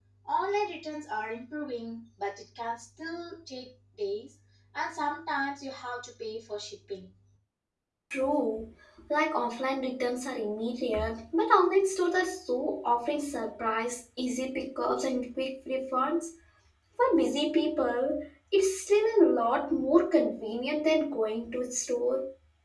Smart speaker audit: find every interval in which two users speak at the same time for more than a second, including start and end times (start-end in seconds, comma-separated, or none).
none